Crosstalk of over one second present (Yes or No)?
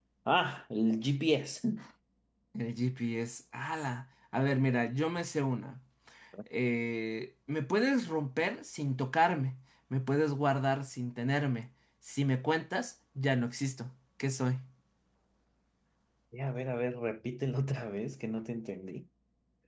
No